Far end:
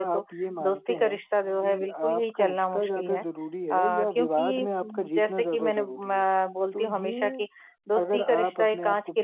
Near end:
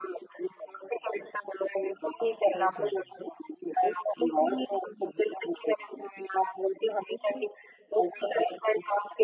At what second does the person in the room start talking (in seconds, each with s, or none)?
2.5 s